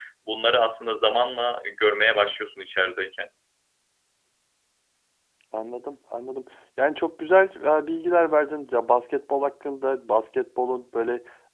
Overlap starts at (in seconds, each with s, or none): none